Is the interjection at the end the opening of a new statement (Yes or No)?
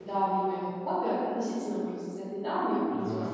No